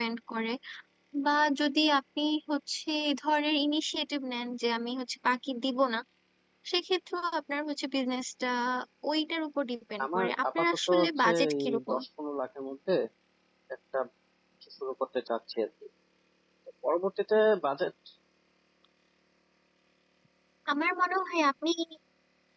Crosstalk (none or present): present